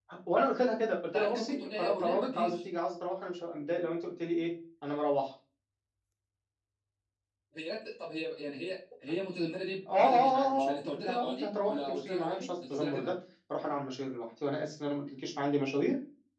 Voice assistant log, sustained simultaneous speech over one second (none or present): present